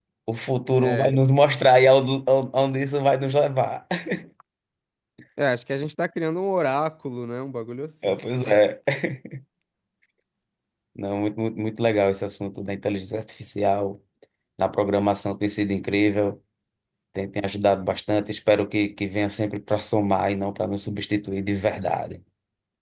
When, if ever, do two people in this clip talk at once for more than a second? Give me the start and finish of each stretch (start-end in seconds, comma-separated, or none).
none